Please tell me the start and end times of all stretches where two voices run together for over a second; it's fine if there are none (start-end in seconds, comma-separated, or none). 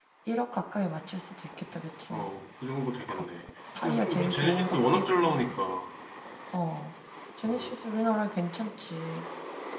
3.8-5.4